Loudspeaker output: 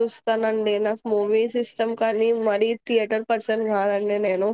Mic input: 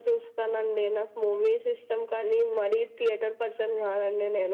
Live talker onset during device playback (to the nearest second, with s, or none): none